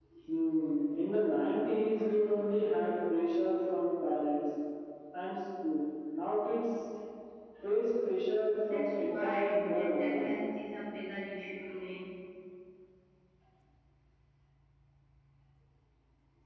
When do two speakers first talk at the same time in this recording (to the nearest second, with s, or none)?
9 s